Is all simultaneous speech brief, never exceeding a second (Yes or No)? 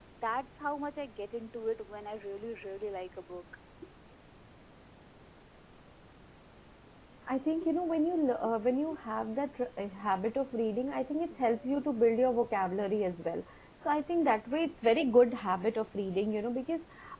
Yes